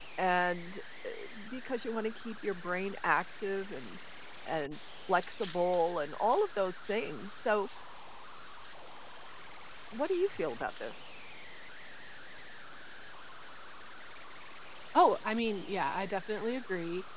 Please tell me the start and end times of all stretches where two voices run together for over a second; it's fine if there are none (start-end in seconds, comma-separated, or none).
none